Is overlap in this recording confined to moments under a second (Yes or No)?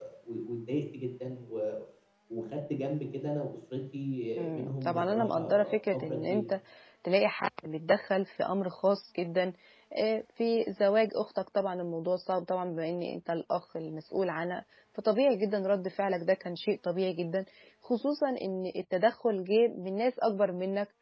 No